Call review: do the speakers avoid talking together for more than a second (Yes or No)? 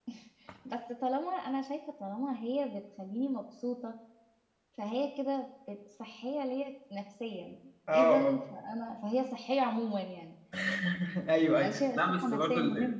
No